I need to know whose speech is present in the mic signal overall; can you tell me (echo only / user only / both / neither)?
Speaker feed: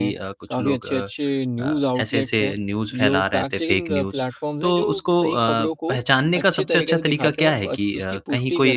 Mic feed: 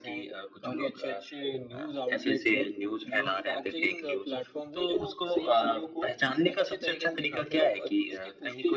echo only